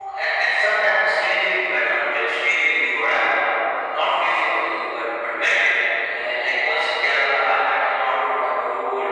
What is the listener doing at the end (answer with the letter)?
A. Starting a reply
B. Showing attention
B